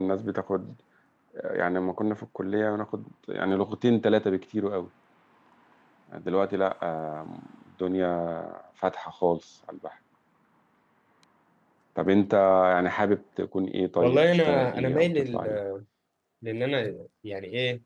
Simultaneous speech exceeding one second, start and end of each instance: 14.0-15.4

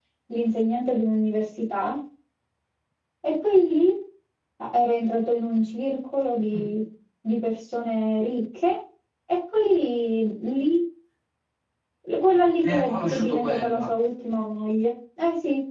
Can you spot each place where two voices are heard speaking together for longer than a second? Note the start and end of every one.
12.6-13.9

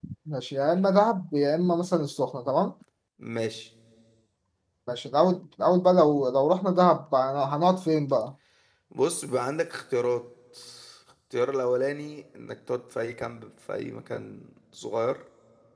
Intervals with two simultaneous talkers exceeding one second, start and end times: none

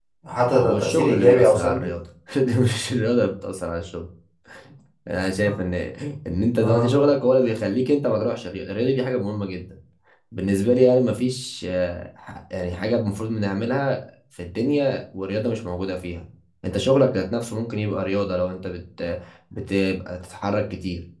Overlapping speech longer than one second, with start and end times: 0.6-1.9

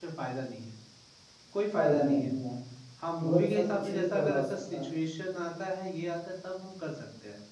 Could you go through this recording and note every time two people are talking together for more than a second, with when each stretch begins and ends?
3.2-4.8

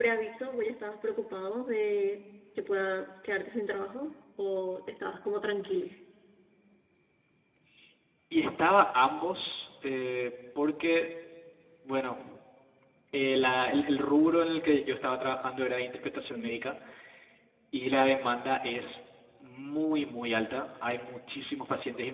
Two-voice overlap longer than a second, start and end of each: none

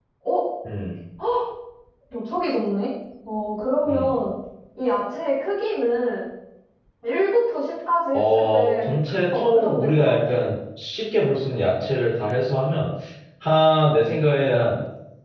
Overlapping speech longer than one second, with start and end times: 8.1-10.3

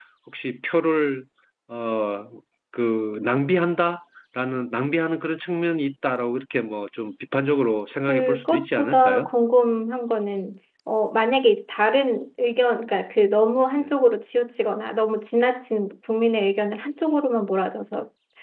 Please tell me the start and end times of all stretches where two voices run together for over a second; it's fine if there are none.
8.1-9.3

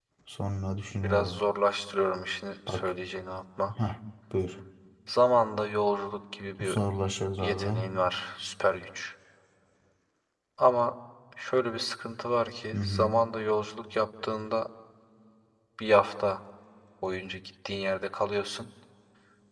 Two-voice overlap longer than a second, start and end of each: none

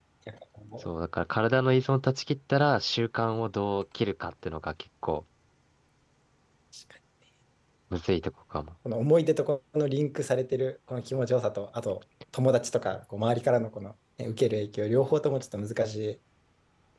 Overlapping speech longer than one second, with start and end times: none

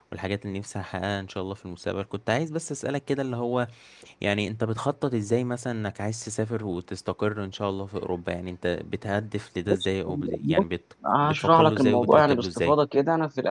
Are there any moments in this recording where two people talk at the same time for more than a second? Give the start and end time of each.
11.2-12.8

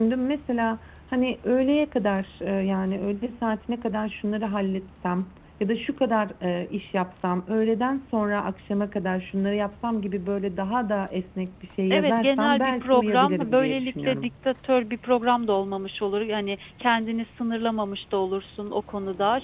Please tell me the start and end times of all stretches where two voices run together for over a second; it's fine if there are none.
11.9-14.3

